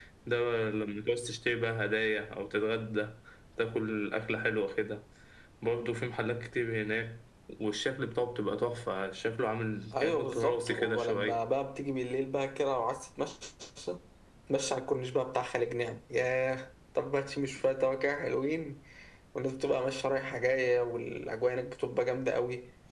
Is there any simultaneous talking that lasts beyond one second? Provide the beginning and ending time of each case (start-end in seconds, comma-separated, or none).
9.9-11.4